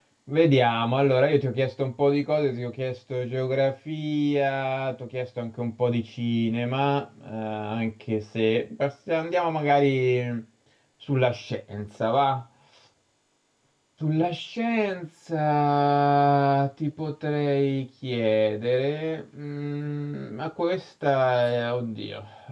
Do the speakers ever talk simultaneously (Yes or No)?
No